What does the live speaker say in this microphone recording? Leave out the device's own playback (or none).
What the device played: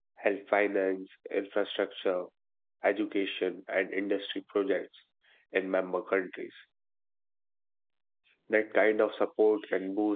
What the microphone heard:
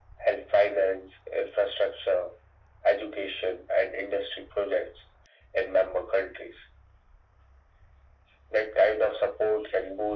none